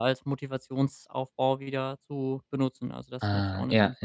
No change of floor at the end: No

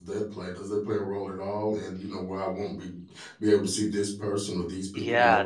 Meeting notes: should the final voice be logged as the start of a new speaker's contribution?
Yes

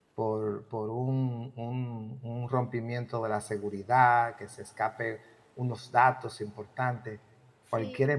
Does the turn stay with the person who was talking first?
Yes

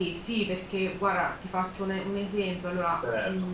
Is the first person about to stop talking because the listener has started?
No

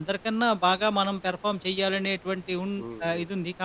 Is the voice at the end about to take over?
No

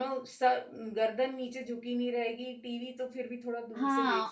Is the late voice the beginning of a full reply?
Yes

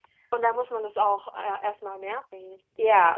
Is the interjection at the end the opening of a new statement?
Yes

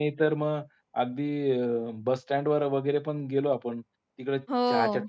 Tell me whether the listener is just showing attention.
Yes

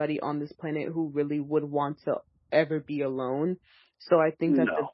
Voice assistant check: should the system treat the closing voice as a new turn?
No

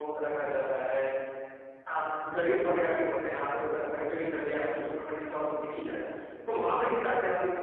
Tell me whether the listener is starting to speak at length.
No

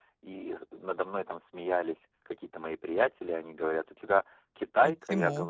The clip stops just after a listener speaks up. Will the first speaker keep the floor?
Yes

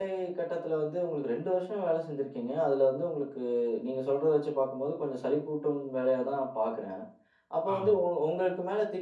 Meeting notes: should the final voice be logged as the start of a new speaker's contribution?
No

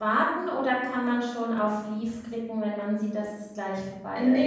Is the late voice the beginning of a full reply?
Yes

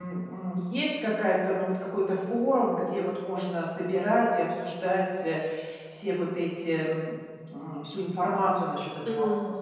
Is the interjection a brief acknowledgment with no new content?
No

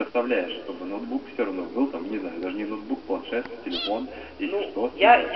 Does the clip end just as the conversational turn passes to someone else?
Yes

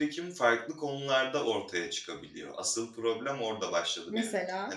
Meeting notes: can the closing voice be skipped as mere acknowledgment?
Yes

